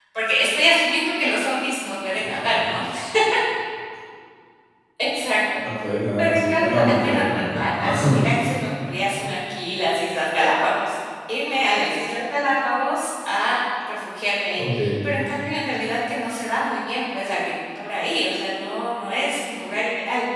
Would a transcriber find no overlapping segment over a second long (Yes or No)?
No